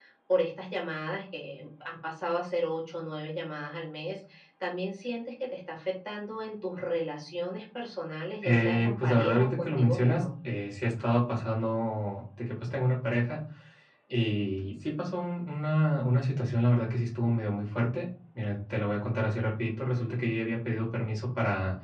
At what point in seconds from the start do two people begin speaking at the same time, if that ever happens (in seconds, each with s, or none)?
8.4 s